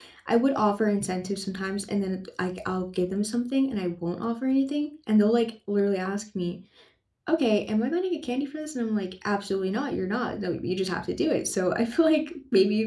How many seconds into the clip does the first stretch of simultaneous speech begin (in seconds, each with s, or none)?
none